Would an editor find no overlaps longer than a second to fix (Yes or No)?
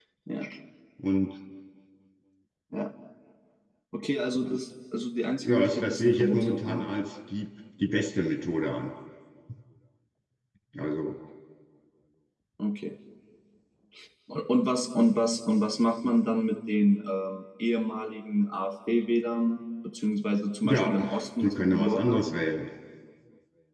No